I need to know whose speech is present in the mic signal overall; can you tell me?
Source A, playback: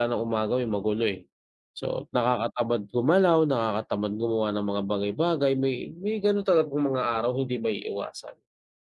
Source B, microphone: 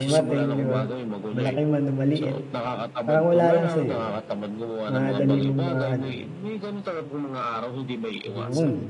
both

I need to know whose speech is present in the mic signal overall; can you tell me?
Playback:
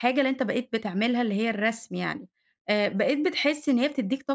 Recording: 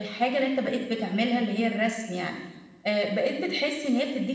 echo only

